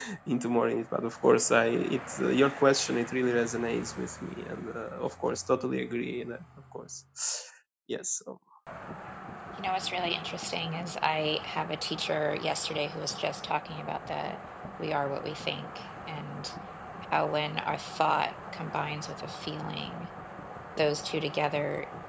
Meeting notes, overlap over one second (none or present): none